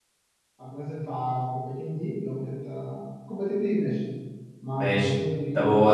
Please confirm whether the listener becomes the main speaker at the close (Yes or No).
Yes